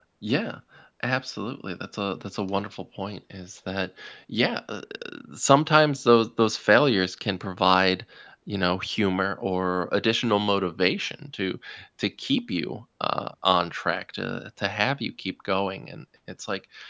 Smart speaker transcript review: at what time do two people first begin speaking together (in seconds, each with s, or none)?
none